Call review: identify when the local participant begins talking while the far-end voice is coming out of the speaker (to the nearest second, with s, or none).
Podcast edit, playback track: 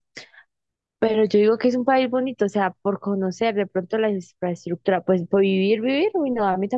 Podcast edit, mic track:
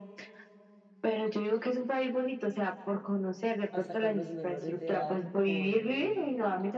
4 s